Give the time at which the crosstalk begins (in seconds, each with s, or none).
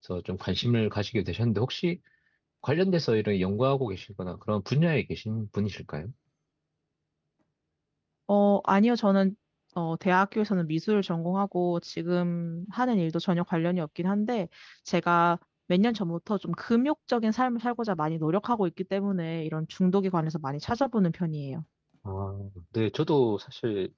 none